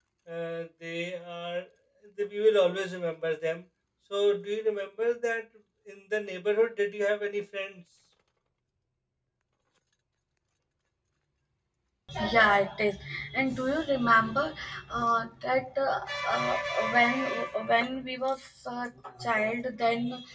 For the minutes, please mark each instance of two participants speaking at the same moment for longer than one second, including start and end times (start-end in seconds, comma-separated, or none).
none